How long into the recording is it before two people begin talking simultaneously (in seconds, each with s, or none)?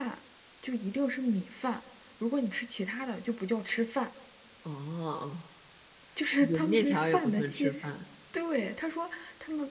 6.5 s